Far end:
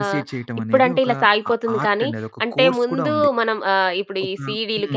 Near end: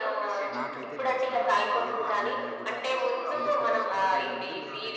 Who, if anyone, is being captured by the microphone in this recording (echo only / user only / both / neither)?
both